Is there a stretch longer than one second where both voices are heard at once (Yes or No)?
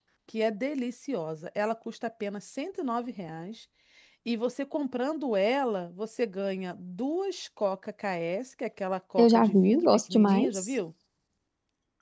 Yes